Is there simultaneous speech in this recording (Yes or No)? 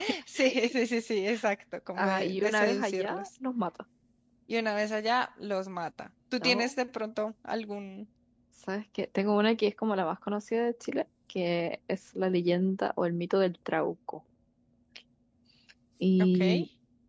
Yes